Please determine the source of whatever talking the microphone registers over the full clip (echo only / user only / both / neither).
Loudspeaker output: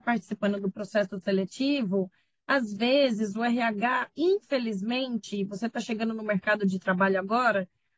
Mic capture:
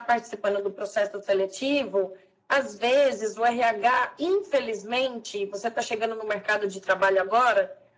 echo only